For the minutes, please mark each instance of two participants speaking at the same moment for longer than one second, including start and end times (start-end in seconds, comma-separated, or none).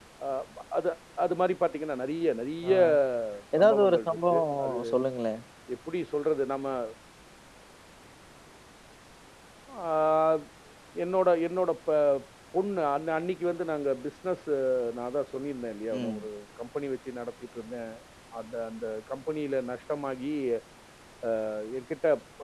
3.6-4.8